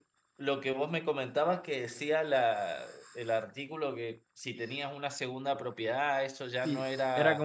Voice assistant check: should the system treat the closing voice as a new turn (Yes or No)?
Yes